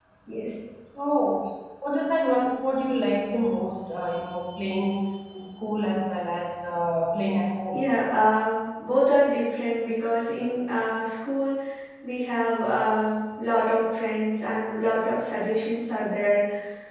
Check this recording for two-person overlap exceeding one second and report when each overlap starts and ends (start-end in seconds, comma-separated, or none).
none